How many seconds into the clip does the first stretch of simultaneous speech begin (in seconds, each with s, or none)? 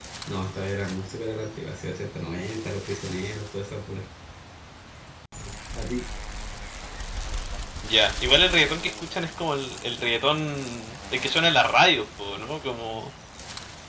none